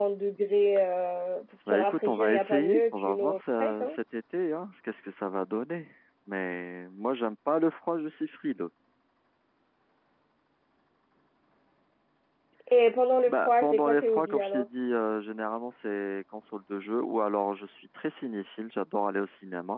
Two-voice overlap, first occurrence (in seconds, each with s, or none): 1.7 s